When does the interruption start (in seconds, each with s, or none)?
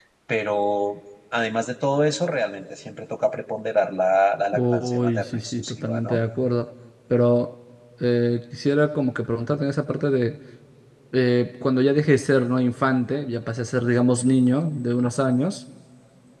4.5 s